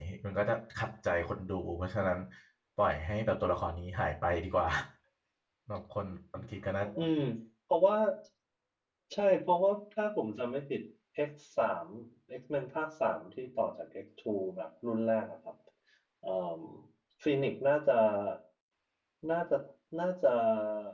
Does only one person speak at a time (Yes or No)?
Yes